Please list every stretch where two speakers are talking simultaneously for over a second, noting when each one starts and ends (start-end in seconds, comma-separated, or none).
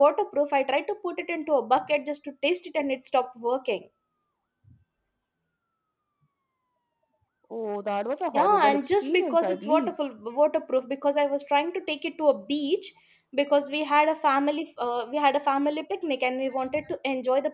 8.3-9.9